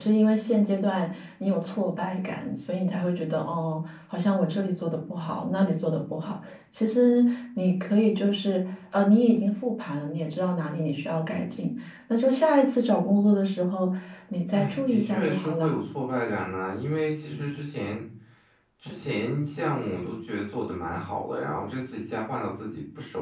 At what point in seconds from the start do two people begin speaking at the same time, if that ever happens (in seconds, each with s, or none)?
14.5 s